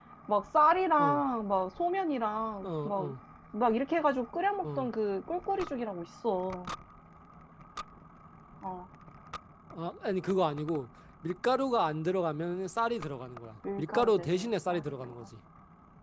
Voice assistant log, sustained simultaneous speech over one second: present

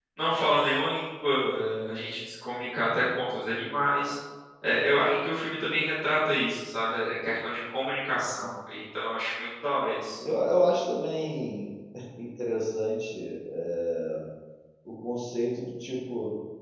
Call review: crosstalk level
none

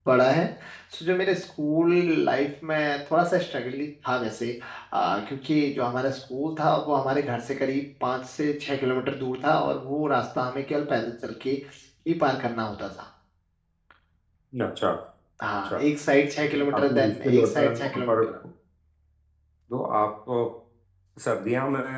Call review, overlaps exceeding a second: present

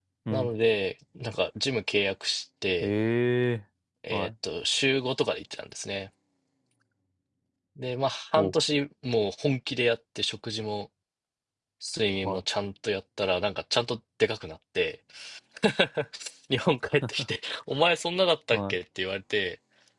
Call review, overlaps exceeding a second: none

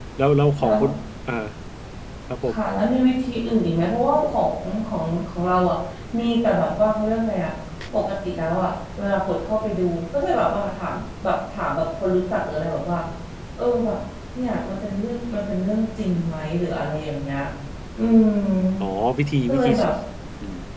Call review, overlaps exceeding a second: none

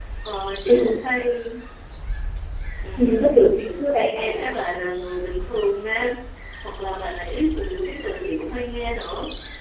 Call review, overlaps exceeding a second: none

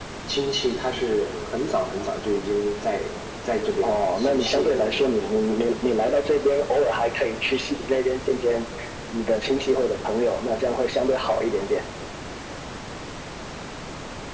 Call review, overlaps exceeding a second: present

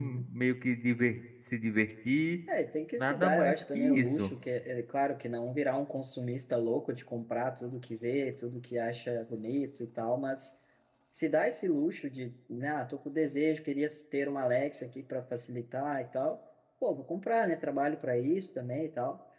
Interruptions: present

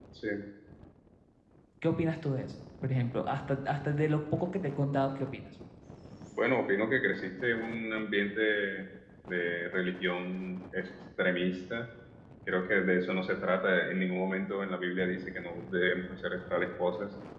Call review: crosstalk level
none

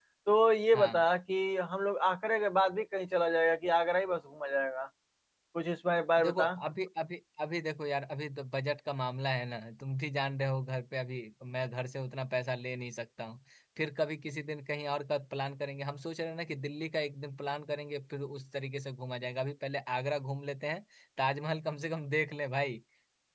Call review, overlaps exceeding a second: none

